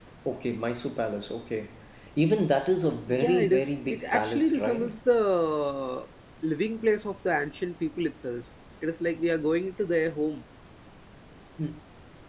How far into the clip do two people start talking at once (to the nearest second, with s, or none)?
3 s